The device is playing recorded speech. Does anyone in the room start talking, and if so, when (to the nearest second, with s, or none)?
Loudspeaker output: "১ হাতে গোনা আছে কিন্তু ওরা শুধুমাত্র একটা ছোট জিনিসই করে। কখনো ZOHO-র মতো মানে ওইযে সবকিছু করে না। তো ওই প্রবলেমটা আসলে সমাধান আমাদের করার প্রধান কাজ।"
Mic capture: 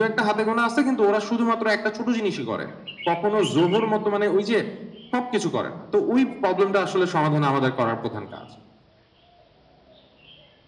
none